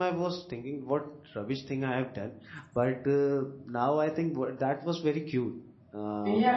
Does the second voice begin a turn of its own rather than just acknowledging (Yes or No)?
Yes